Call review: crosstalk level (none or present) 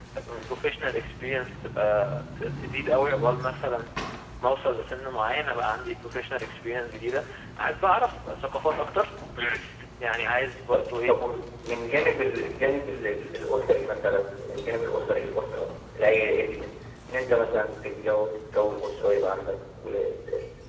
none